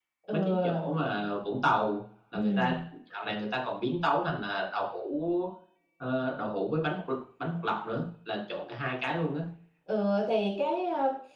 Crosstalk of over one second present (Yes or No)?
No